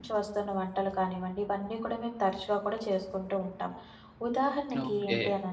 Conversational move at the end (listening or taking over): listening